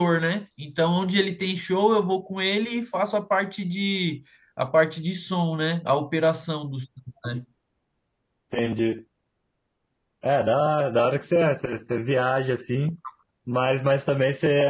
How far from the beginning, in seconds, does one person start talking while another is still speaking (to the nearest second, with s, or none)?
none